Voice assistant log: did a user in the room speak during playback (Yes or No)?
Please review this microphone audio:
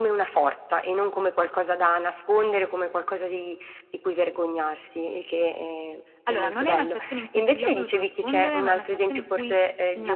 No